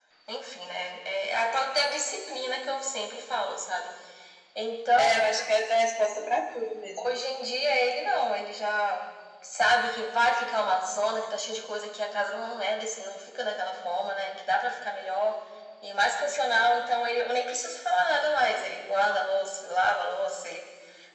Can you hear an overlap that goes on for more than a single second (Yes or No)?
No